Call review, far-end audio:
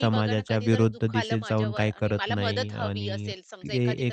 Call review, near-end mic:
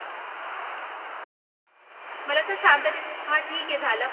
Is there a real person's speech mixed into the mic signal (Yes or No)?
Yes